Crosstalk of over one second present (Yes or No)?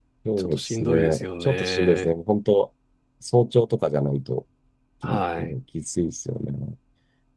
Yes